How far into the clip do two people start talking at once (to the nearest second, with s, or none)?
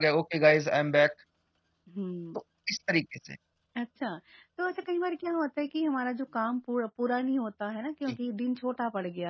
none